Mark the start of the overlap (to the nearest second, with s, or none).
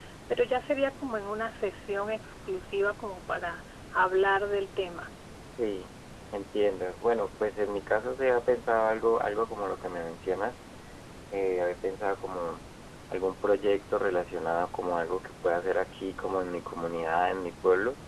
none